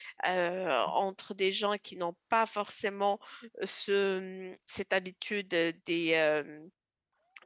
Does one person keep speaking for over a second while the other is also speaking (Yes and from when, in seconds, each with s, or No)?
No